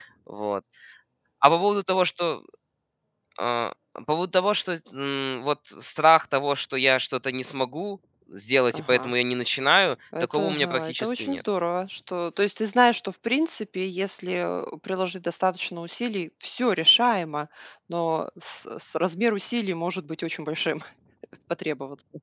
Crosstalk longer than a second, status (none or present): present